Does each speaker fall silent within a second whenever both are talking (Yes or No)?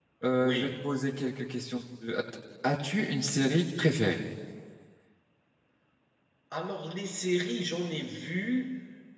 Yes